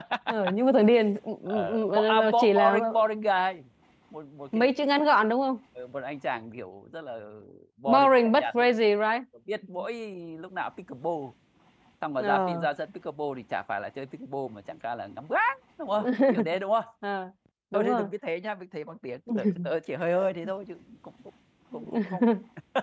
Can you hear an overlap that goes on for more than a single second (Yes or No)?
Yes